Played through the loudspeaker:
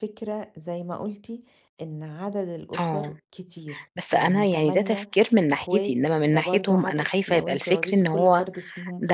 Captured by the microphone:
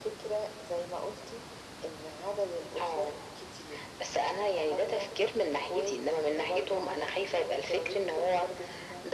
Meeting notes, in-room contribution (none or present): none